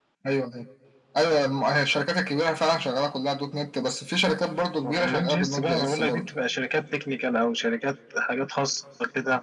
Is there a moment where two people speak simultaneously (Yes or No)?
Yes